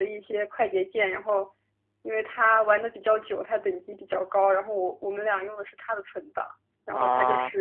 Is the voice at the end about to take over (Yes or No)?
No